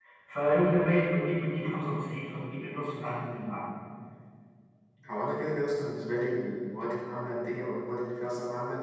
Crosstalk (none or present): none